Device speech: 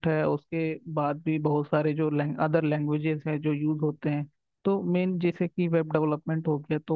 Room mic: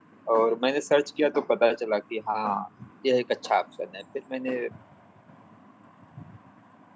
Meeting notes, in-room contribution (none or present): present